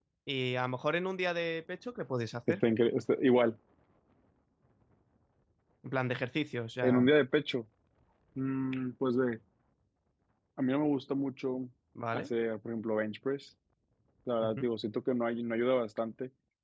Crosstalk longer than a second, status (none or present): none